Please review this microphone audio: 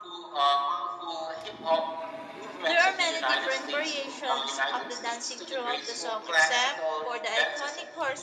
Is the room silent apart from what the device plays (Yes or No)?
No